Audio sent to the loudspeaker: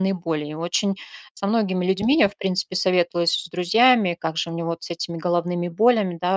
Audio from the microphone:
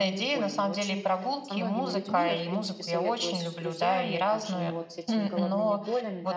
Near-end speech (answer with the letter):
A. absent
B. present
B